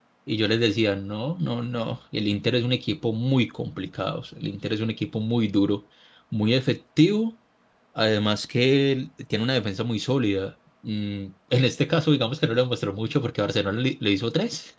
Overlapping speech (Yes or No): No